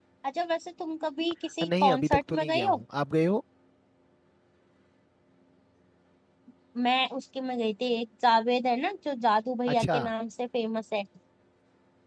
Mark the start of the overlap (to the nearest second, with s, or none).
2 s